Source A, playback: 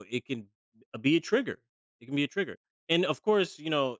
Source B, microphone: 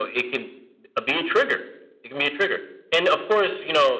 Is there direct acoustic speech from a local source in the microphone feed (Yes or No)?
No